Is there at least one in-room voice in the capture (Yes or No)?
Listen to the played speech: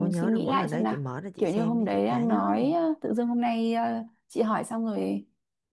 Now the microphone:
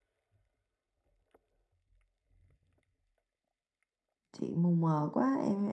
Yes